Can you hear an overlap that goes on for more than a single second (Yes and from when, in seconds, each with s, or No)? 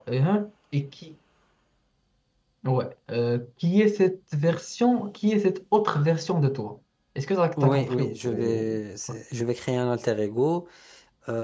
Yes, from 7.6 s